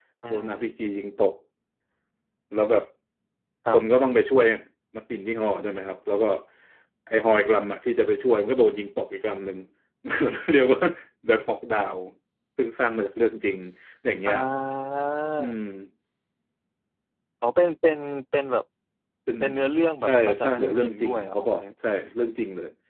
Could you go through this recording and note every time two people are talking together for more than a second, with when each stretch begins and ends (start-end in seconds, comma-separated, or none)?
20.0-21.6